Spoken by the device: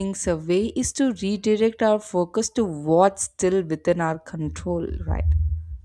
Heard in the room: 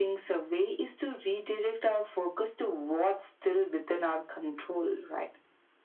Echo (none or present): present